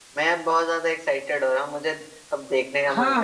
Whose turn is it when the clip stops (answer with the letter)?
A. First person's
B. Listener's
B